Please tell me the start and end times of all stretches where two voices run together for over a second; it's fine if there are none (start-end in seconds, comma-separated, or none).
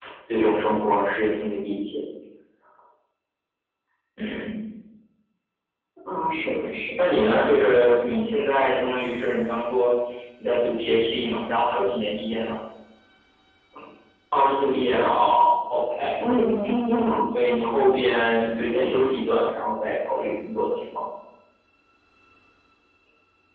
none